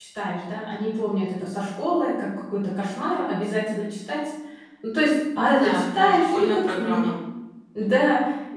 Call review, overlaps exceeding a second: present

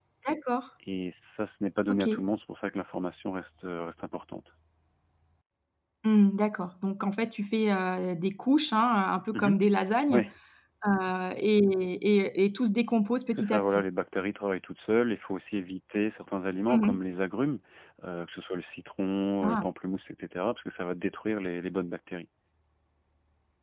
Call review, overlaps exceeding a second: none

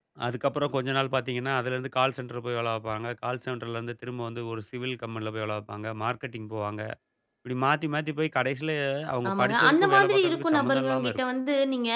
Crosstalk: present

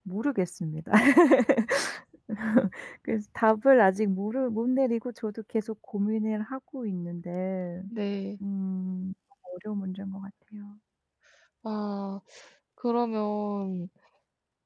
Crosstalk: none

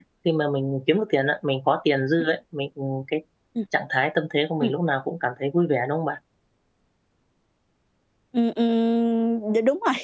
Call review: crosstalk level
none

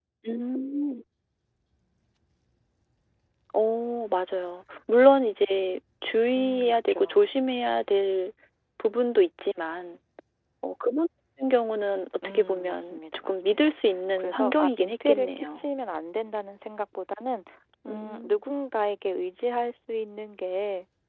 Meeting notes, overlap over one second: present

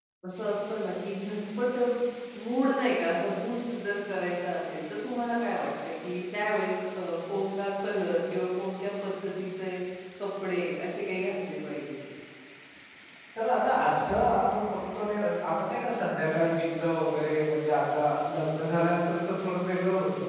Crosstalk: none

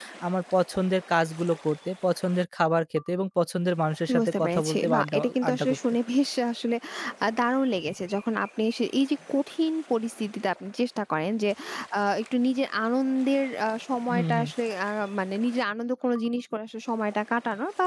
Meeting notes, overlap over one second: present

